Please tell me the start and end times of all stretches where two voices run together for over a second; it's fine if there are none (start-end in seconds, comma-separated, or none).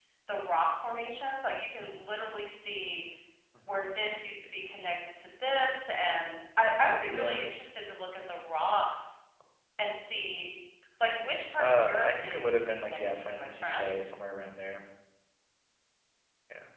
11.6-14.0